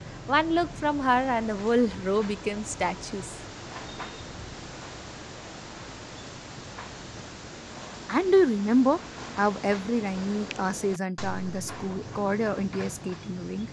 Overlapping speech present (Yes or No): No